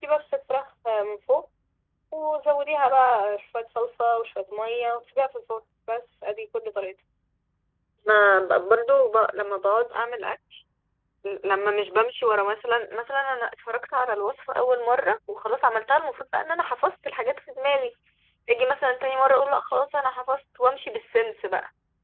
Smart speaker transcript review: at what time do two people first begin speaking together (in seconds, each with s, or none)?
none